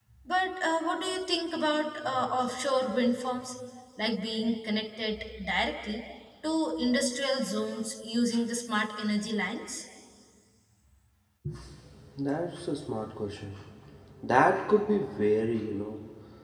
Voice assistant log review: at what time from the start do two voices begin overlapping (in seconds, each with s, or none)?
none